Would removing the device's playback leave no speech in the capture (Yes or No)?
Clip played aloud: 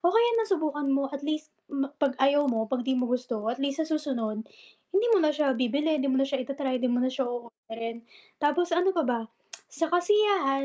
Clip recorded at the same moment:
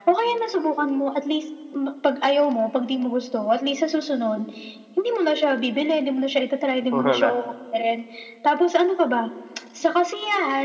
No